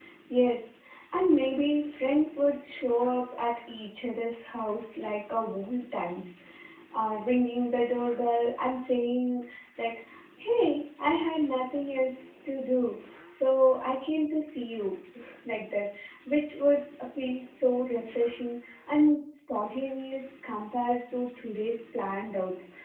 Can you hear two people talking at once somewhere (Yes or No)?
No